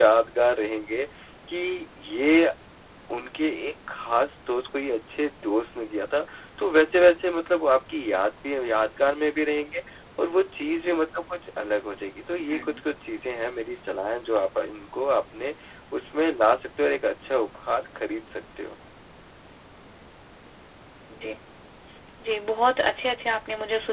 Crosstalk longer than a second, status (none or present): none